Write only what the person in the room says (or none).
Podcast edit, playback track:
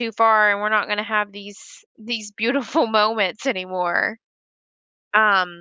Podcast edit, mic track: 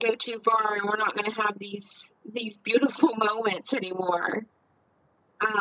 none